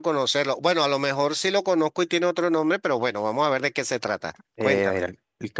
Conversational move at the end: taking over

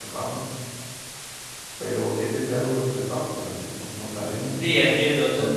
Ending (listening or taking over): taking over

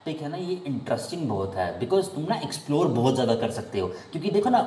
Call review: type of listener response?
listening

